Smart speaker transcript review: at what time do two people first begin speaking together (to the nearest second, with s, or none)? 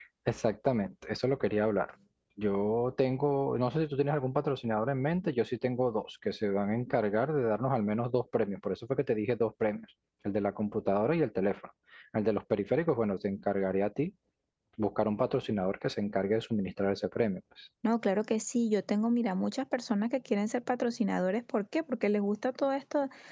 none